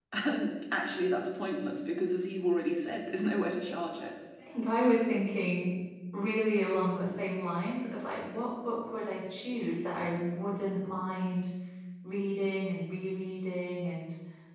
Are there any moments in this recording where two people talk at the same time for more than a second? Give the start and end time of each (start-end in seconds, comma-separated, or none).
none